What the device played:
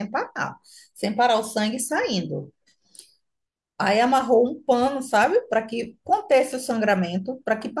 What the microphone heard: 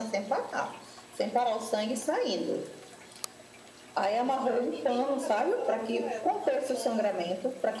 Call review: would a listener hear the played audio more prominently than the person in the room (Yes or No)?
Yes